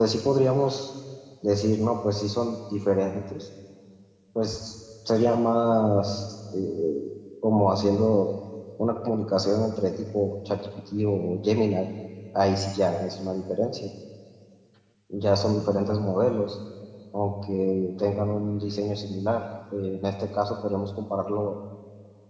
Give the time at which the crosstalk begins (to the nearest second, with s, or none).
none